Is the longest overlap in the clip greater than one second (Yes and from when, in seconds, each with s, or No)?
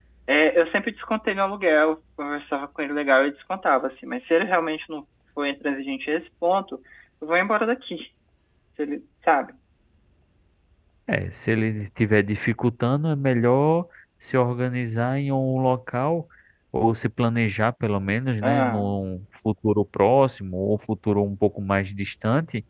No